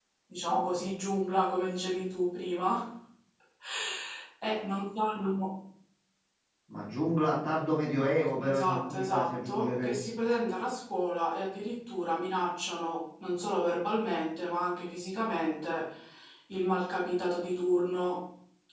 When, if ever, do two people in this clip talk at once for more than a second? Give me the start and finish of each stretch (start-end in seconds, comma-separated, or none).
8.4-10.0